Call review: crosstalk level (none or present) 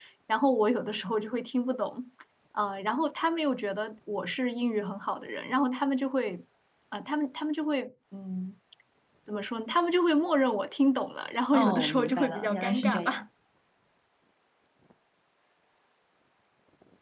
present